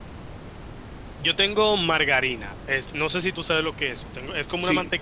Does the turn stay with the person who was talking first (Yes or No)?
Yes